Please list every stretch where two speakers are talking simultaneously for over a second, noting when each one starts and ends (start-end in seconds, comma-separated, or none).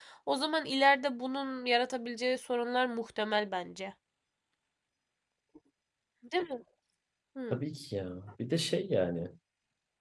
none